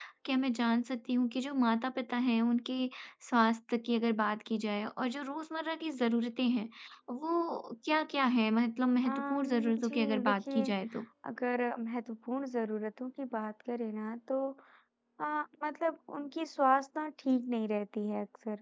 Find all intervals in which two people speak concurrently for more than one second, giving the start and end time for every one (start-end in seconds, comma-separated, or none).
9.1-10.6